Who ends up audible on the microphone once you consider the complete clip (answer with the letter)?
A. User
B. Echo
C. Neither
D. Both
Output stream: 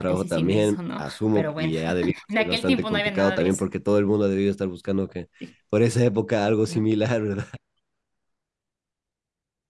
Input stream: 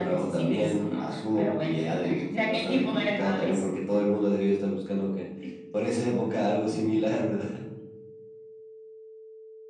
B